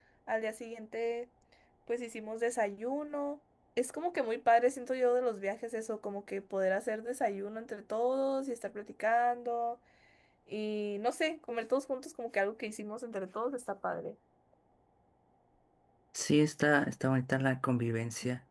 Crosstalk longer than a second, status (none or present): none